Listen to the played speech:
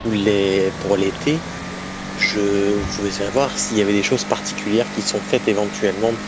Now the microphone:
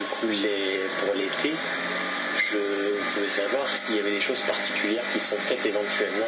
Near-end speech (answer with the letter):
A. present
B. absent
B